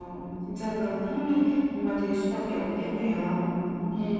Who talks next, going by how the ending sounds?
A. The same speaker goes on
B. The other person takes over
B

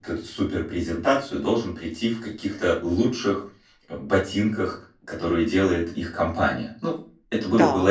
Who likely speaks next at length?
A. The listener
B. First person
A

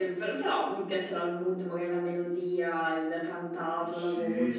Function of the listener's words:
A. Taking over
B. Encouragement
A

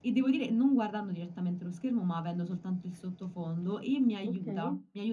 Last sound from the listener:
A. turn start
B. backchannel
B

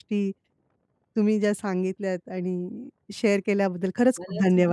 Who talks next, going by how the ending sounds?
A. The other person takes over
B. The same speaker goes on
A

